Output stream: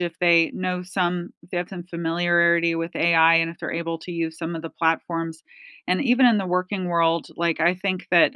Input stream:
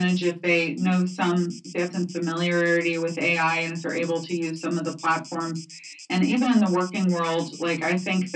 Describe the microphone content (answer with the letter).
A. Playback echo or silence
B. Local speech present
A